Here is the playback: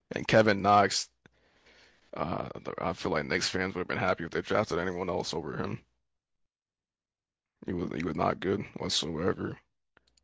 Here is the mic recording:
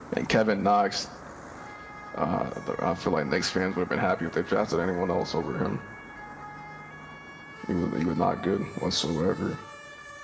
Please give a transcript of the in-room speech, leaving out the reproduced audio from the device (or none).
none